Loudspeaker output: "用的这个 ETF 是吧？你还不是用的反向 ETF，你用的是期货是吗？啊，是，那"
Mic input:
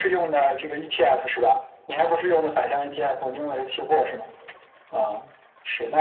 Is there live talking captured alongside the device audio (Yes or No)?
No